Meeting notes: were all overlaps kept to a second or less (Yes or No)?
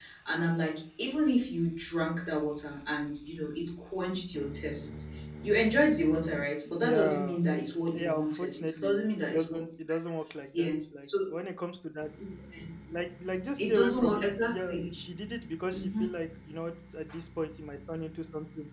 No